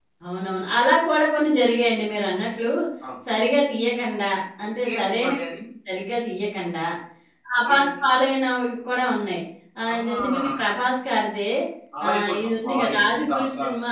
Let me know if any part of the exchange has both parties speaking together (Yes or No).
Yes